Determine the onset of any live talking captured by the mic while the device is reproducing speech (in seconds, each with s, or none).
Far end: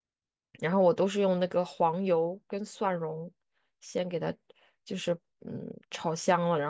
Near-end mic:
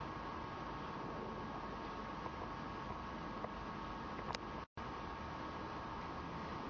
none